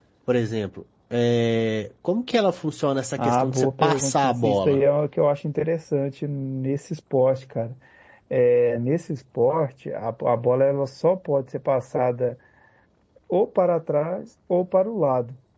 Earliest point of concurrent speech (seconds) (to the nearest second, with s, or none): 3 s